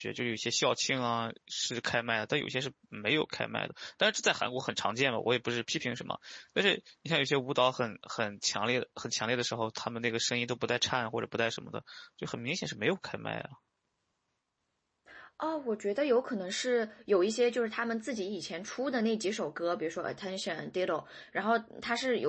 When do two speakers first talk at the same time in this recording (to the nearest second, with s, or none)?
none